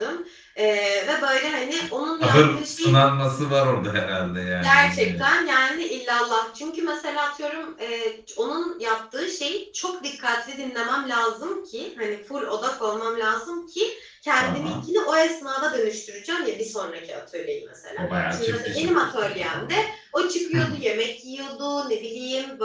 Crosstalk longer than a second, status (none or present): present